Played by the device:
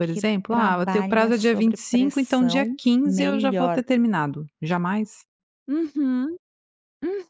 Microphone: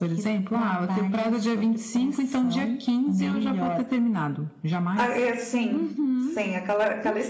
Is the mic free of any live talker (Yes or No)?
No